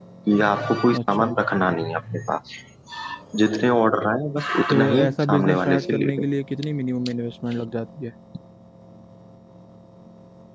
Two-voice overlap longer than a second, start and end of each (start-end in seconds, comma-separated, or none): 4.7-6.2